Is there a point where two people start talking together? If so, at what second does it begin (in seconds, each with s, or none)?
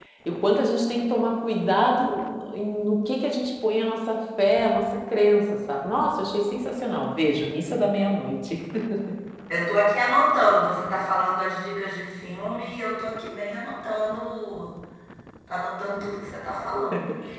none